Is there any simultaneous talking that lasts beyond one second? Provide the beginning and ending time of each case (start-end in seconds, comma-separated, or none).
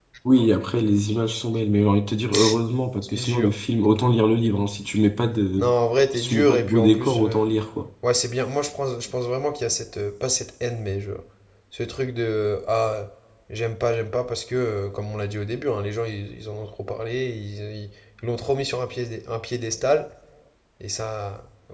6.1-7.5